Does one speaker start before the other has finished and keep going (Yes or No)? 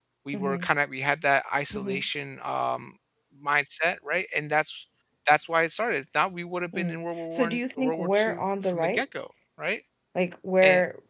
Yes